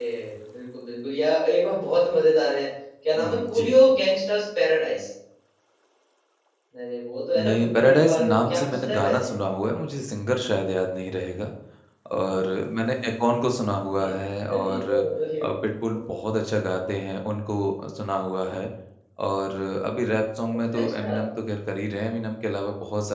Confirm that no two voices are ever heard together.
No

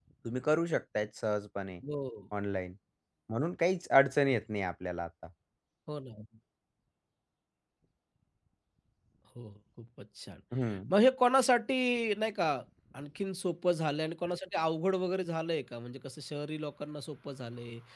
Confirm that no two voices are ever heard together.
Yes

